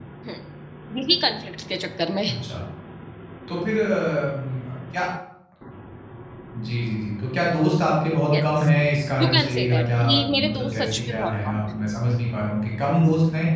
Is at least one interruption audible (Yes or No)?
Yes